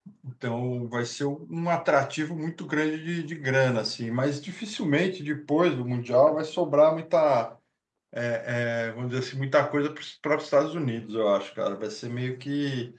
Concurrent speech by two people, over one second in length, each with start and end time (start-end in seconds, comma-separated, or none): none